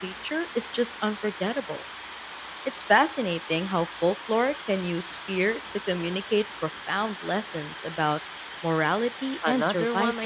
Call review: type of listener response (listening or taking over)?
taking over